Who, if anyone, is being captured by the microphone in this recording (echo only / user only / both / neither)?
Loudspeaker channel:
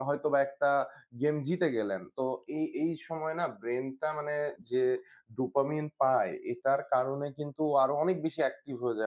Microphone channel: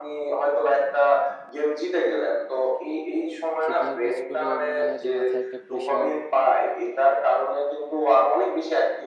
both